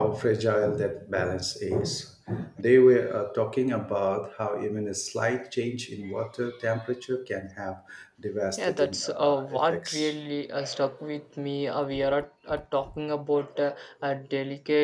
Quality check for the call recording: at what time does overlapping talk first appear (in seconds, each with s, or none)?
8.6 s